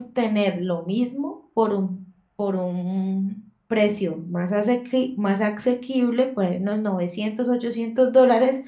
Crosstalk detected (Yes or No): No